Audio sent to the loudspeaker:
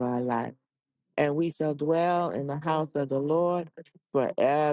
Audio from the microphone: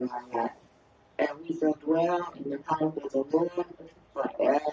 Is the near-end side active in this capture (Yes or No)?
No